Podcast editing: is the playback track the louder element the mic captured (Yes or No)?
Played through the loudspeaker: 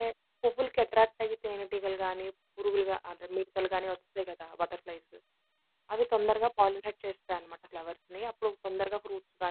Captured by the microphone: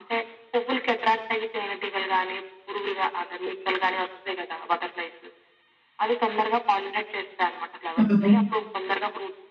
No